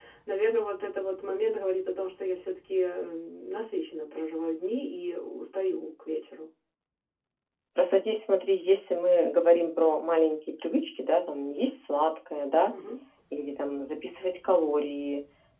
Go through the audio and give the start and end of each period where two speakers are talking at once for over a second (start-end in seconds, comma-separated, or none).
none